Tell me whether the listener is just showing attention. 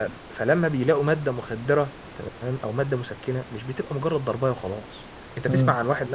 Yes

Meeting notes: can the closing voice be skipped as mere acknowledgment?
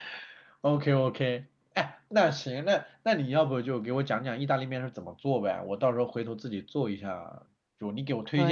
Yes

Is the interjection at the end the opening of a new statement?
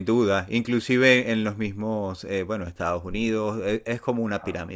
No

